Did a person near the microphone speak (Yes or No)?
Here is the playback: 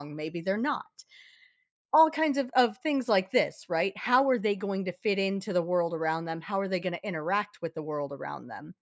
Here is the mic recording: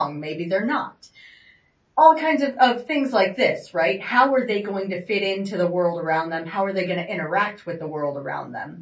No